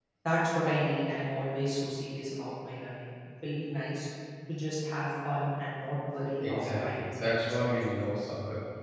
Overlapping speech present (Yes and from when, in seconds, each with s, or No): Yes, from 6.4 s